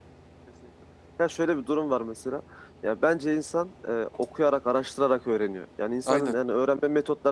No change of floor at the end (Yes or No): Yes